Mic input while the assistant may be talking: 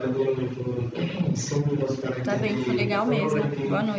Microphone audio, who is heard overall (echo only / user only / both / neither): both